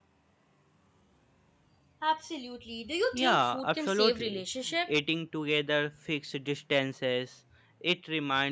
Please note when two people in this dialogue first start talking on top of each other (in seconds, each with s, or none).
3.1 s